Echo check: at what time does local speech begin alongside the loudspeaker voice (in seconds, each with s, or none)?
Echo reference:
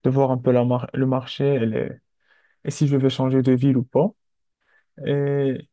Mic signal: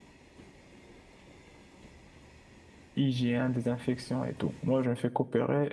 2.9 s